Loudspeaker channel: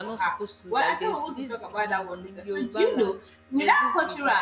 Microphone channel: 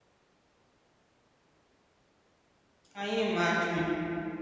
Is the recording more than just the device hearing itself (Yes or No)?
Yes